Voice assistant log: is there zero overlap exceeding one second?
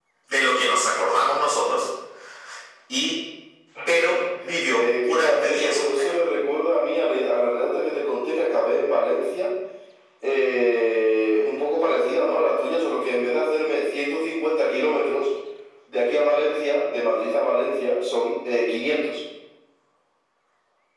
No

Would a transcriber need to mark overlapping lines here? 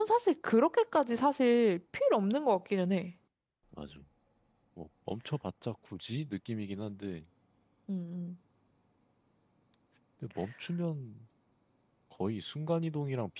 No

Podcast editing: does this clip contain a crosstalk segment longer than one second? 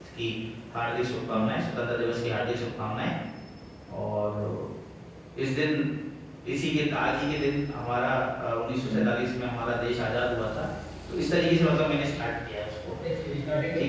No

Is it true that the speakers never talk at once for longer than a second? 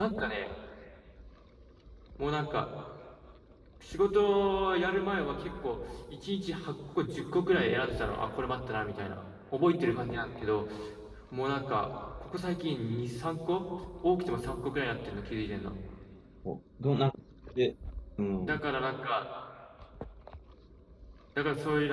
Yes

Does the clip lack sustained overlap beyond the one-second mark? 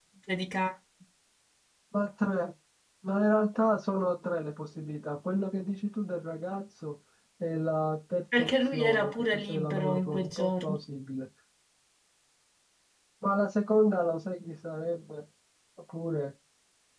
No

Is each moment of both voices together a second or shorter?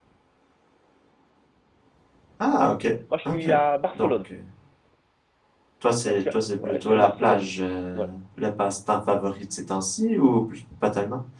No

